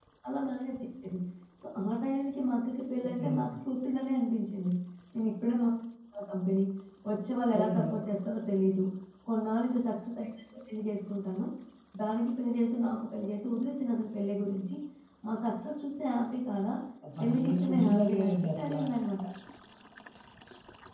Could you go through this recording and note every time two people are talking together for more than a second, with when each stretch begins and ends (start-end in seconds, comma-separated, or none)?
17.2-18.8